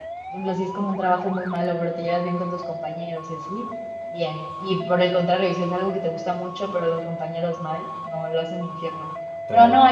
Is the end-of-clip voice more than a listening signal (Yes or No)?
No